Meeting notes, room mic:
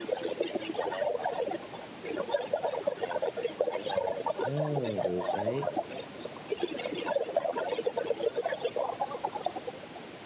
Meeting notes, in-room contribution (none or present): present